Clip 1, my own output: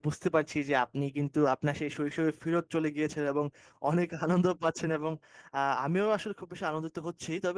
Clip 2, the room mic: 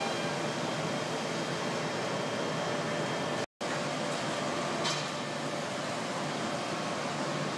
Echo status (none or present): none